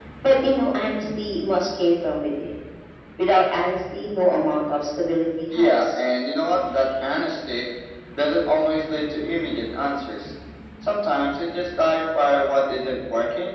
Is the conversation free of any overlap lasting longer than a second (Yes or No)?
Yes